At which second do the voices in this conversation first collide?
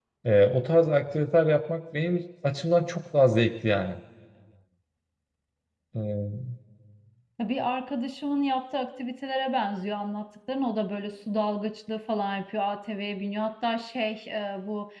none

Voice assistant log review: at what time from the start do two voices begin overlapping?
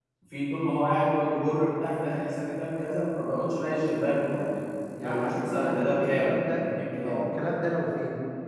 5.0 s

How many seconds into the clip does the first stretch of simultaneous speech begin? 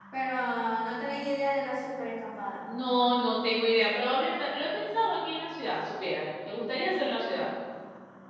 none

